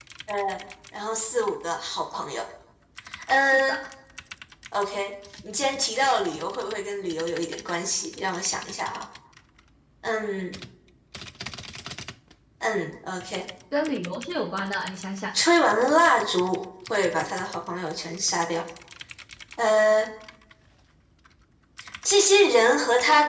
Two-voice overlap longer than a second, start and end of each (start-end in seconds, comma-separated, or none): none